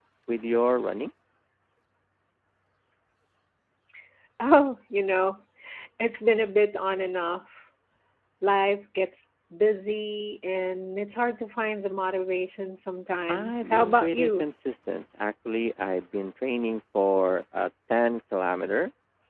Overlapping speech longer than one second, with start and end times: 13.3-14.5

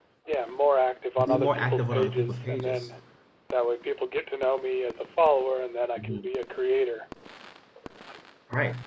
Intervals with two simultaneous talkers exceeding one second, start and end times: 1.2-3.0

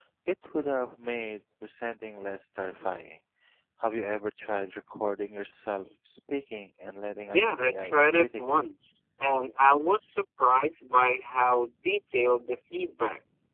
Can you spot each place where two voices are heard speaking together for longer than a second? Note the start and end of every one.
7.3-8.6

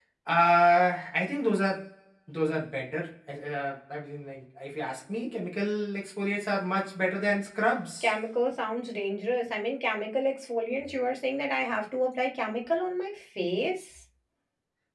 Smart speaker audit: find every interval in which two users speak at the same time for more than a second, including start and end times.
none

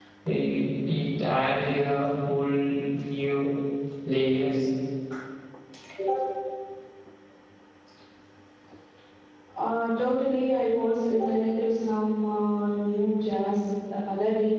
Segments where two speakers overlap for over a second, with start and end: none

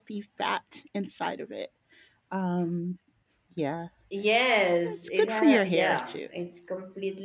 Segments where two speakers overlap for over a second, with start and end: 4.8-6.2

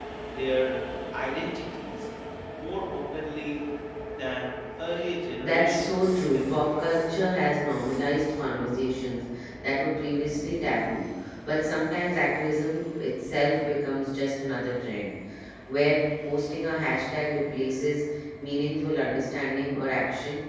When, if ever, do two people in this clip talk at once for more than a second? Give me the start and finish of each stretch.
5.4-6.8

